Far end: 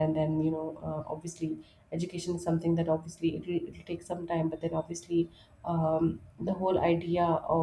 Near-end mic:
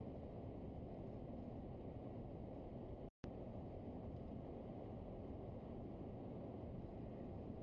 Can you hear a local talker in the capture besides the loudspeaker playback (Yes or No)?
No